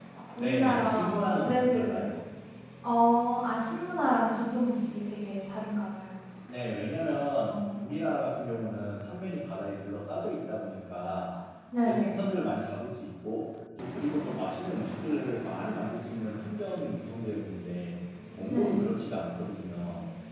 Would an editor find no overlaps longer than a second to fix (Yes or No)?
No